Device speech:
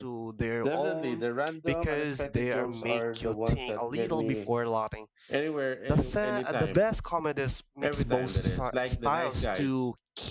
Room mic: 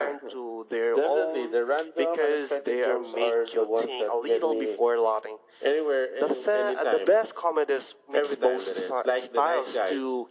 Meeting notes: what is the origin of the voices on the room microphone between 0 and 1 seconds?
echo only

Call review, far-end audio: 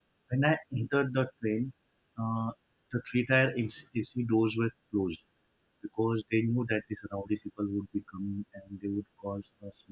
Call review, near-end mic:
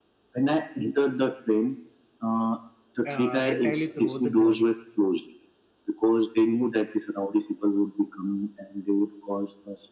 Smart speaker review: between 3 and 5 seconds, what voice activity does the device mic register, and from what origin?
both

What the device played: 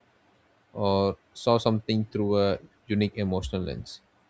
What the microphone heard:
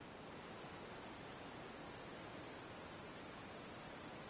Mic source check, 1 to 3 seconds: neither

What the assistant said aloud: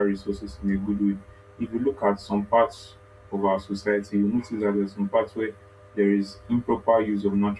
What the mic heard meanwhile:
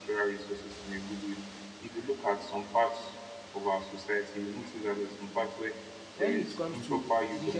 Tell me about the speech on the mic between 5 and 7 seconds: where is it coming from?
both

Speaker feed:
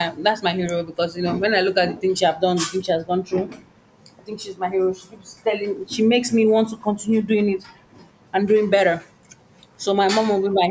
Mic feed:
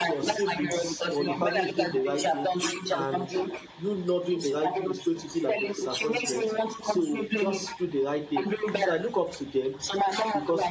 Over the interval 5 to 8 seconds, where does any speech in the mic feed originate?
both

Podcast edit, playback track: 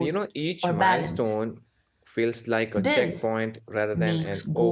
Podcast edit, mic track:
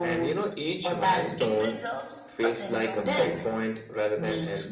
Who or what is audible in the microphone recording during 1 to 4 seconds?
both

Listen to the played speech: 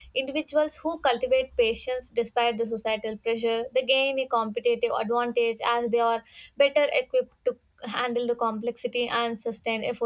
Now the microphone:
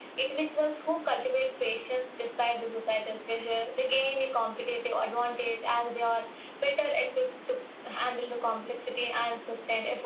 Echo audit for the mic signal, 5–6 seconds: echo only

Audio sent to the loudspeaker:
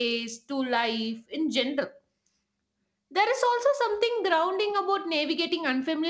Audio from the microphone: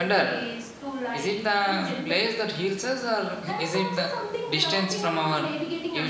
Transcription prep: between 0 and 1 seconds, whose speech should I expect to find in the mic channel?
both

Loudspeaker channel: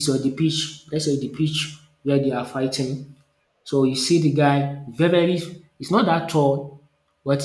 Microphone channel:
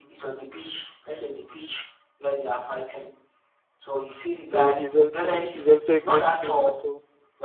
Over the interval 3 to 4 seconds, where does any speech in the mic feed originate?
echo only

